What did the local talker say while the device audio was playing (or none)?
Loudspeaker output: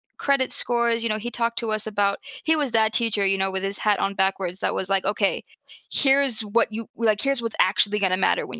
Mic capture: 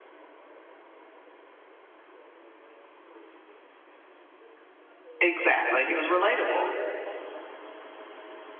Exactly. He was relatable.